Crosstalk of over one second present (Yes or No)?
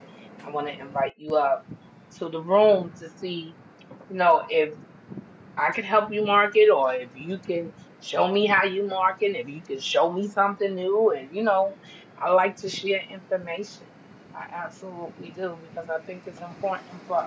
No